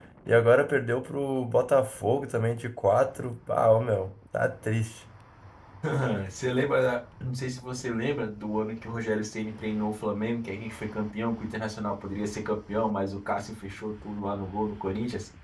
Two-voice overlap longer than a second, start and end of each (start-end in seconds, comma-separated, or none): none